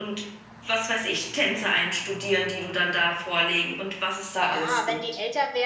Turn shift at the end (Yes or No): Yes